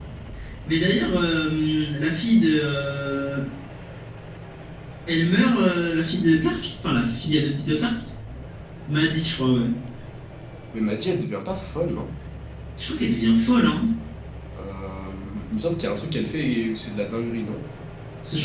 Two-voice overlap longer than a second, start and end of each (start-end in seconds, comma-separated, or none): none